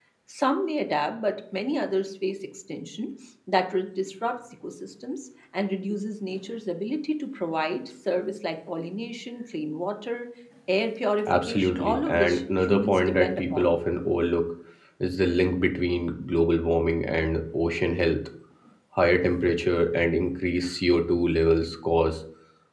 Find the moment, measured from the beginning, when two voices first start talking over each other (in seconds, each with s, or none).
11.3 s